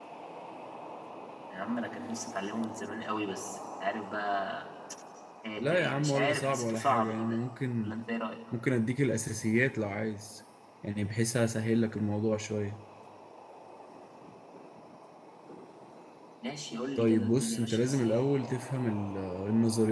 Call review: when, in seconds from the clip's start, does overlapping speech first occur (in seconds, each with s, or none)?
5.6 s